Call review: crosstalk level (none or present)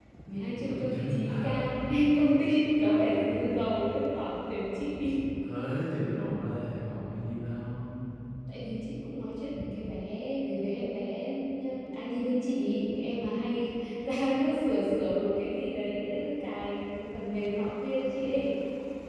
present